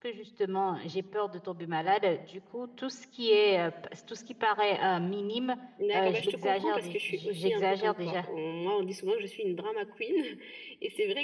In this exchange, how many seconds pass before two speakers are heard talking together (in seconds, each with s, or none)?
6.0 s